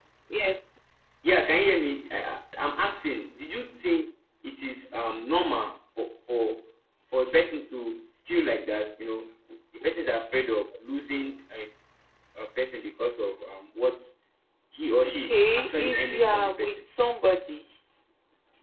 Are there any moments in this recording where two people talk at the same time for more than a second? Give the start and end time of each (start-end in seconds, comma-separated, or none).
15.2-16.8